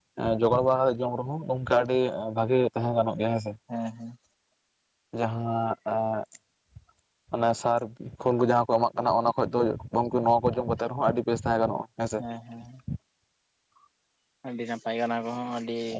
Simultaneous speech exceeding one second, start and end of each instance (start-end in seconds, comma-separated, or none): none